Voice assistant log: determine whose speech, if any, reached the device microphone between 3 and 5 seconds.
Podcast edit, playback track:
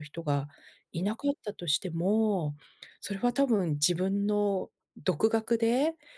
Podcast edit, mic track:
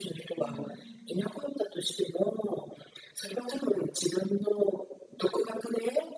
echo only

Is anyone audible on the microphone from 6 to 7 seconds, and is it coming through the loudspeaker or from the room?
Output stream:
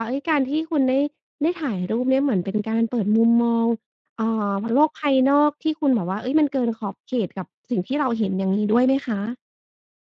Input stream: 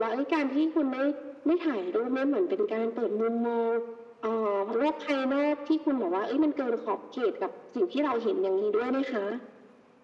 echo only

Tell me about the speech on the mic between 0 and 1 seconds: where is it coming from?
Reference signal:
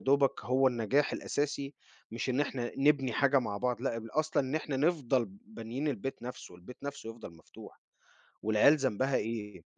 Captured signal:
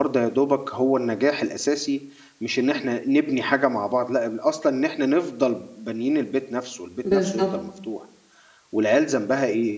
echo only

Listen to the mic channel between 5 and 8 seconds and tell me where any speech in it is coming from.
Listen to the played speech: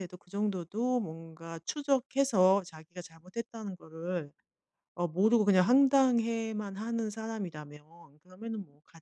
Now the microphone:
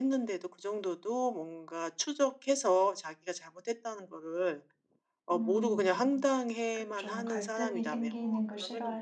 both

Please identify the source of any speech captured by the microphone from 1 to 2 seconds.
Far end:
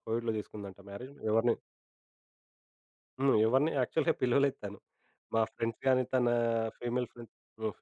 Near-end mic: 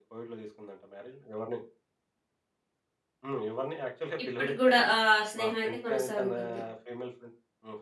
echo only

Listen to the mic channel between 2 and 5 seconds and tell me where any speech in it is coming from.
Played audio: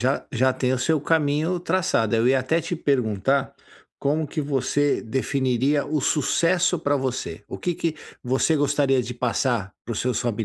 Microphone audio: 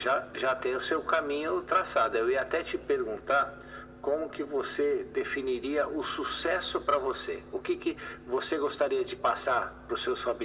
echo only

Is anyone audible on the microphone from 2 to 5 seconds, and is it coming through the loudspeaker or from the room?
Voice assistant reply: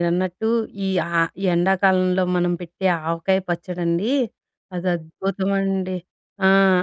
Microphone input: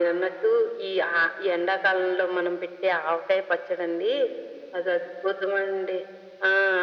echo only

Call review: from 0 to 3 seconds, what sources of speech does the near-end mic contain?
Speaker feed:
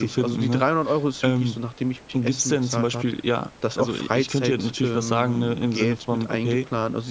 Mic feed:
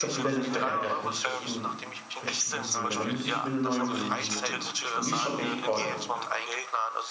both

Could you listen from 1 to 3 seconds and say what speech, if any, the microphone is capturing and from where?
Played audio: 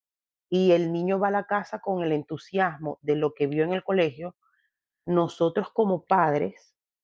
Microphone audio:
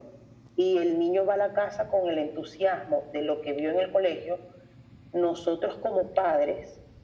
echo only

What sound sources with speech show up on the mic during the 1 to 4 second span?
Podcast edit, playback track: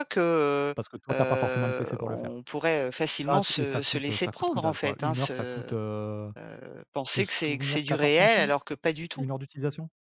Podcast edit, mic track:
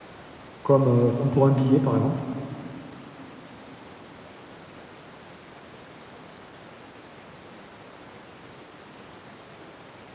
user only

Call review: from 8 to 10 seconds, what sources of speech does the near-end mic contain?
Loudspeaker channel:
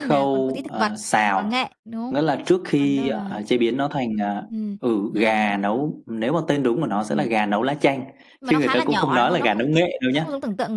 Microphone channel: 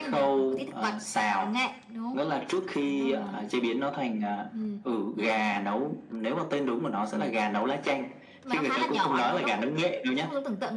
echo only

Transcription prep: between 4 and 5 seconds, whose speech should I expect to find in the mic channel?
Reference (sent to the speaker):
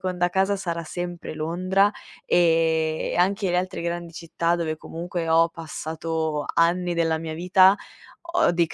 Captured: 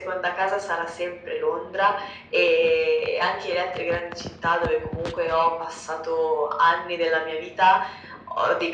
echo only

